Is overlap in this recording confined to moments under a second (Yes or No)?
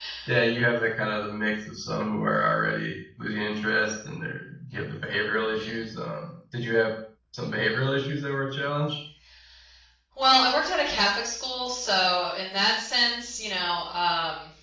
Yes